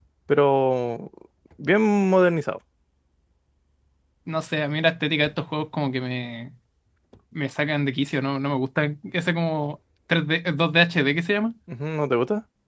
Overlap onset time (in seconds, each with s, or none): none